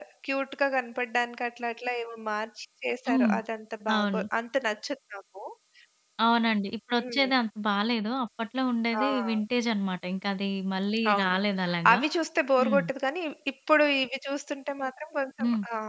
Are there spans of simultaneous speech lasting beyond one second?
No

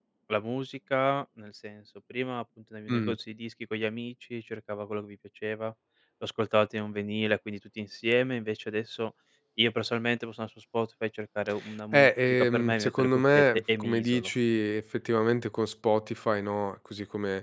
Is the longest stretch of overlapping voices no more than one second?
No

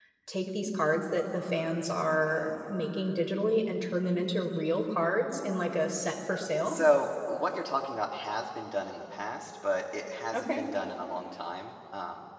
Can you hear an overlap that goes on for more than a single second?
No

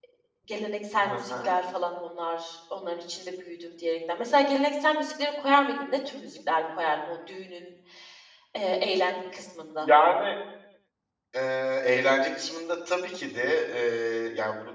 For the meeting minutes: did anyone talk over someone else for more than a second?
No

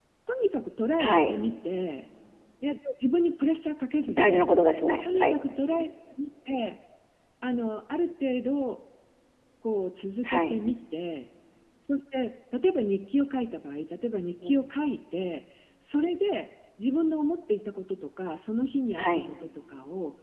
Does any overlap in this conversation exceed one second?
No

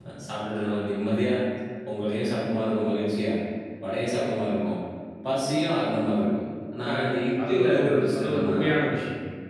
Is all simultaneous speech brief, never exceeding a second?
No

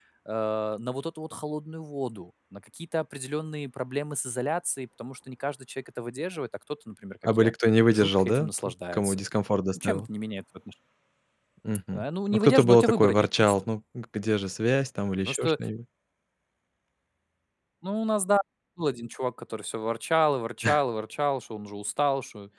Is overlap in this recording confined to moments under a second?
No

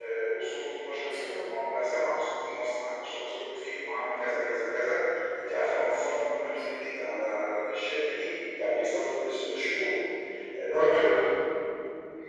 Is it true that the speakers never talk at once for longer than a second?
Yes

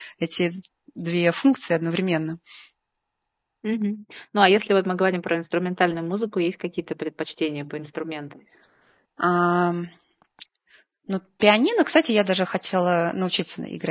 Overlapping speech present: No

